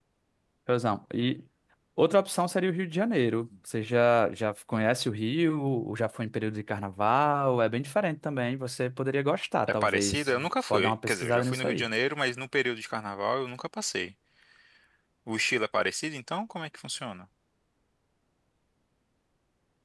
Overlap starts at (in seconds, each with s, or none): 9.8 s